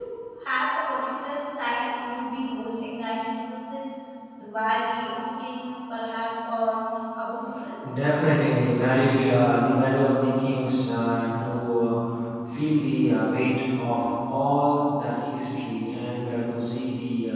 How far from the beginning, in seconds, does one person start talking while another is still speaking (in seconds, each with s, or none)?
none